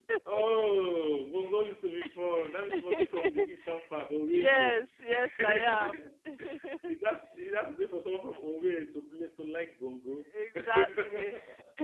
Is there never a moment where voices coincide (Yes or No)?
No